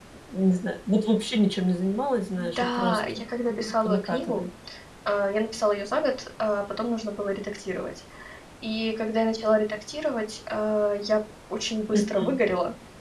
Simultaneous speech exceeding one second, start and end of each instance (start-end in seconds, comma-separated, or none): 2.4-4.5